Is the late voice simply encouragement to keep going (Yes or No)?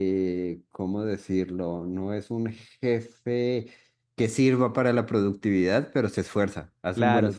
No